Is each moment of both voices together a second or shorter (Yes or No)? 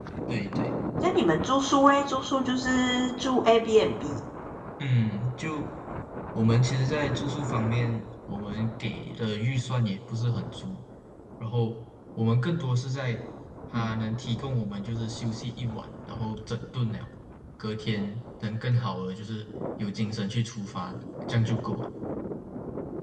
Yes